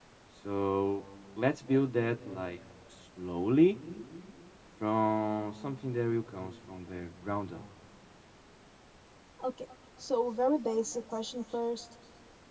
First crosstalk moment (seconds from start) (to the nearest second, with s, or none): none